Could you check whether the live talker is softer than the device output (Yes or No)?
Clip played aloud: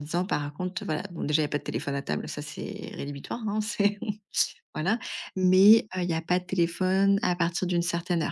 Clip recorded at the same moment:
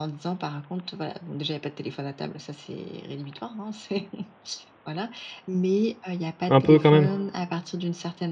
No